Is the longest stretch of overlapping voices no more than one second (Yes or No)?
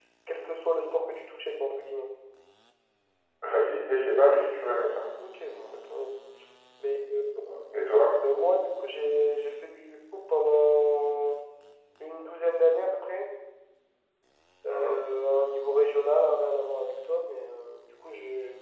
Yes